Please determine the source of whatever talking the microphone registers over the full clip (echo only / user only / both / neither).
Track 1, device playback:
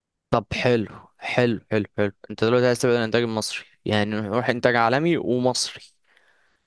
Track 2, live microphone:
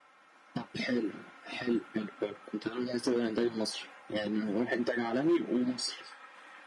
echo only